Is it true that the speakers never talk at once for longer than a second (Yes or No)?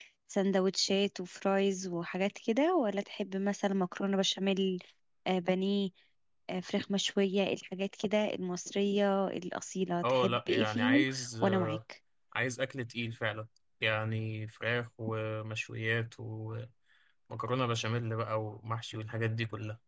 No